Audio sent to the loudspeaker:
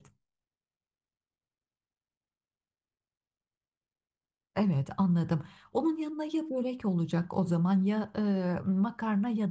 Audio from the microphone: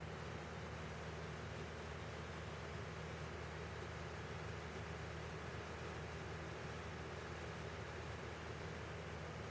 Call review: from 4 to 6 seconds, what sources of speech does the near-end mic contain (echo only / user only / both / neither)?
neither